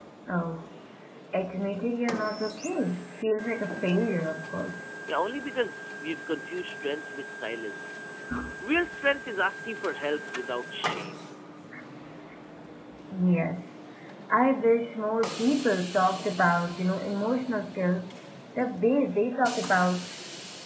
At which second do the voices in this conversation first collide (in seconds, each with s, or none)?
none